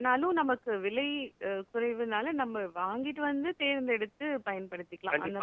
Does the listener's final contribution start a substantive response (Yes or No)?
Yes